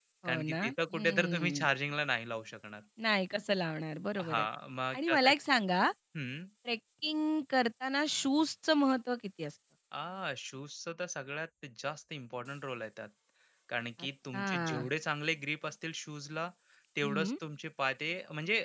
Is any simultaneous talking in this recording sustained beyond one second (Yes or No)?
Yes